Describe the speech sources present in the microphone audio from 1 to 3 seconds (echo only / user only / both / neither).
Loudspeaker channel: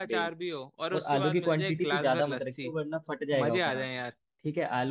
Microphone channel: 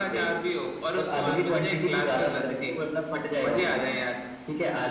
echo only